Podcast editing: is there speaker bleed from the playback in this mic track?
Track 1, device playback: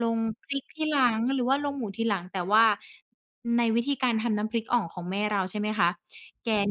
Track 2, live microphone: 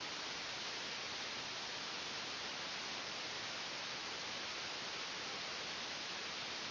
No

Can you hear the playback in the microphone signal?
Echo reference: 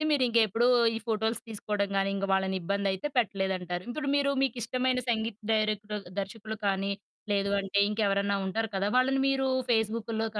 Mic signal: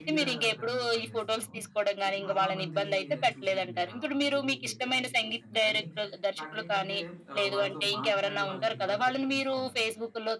Yes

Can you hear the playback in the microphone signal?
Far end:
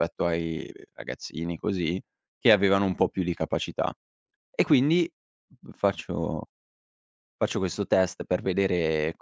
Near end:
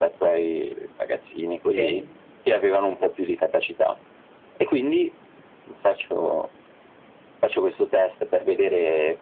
Yes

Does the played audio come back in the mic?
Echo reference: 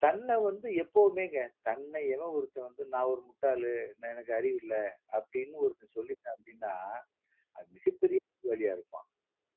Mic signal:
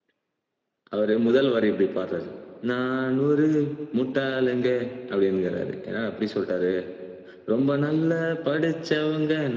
No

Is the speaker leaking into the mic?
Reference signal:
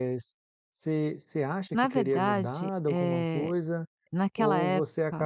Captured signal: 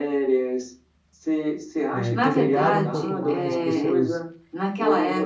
Yes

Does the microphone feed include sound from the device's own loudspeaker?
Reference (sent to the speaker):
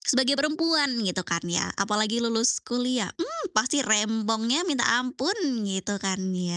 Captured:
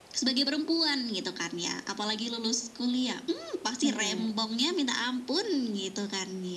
Yes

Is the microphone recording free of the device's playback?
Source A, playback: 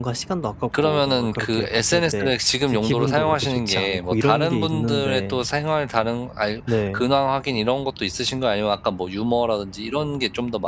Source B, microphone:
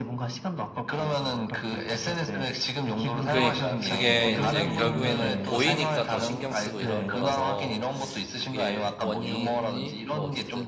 No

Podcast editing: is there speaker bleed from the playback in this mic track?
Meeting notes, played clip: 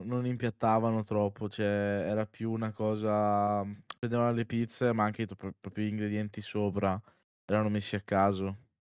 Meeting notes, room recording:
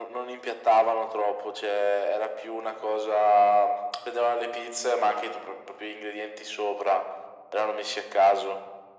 Yes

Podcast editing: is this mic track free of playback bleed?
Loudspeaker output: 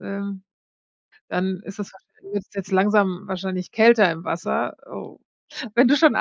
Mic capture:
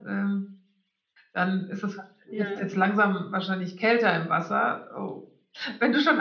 No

